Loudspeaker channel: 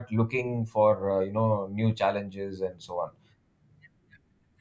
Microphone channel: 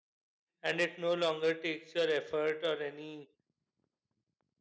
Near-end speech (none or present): present